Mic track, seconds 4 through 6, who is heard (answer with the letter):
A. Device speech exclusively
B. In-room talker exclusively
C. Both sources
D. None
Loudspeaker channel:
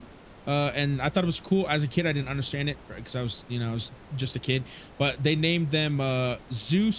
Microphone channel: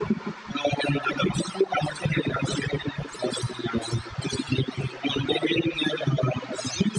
A